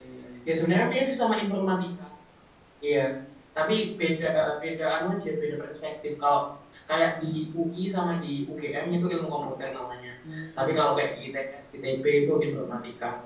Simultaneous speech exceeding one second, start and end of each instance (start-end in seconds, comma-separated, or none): none